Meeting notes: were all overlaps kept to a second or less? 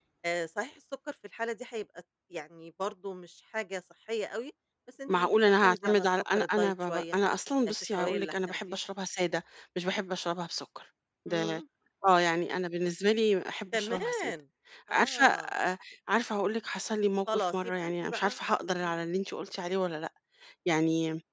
No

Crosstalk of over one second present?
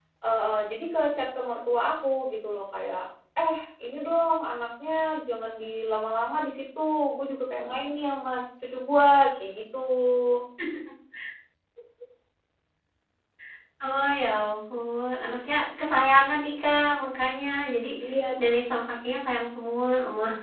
No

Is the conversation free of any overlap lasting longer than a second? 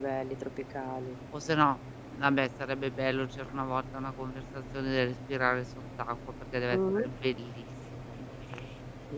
Yes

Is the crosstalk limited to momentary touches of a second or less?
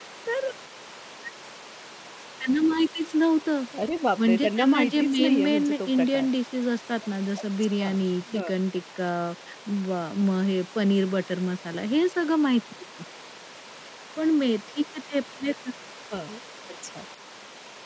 No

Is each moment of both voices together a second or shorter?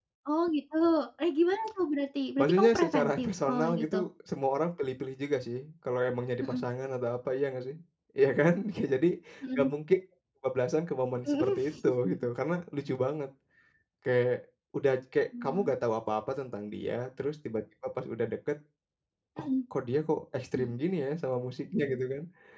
No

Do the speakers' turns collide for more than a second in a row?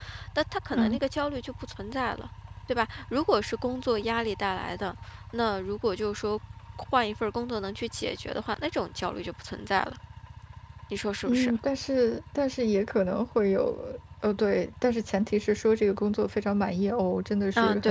No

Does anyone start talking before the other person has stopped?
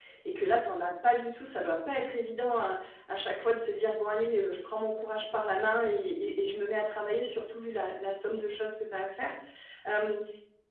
No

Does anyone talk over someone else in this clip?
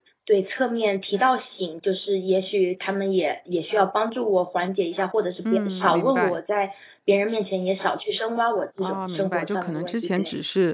Yes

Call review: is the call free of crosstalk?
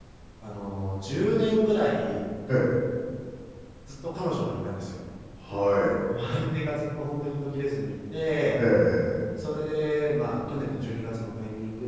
Yes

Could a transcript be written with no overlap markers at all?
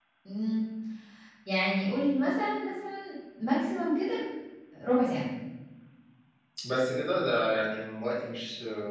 Yes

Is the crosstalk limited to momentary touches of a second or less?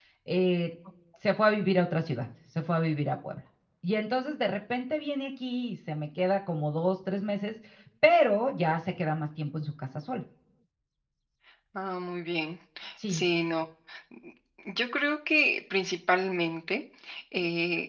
Yes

